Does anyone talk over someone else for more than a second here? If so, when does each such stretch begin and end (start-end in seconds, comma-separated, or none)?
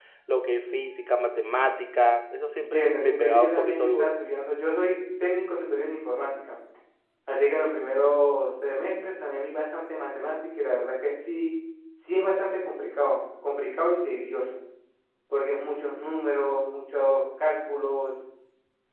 2.7-4.1